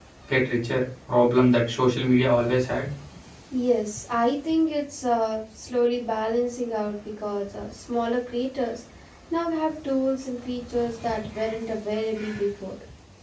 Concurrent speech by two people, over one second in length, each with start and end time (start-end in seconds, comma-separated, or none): none